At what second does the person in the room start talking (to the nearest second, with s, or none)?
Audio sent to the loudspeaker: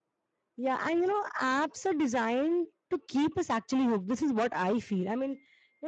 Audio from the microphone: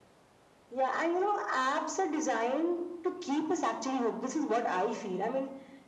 none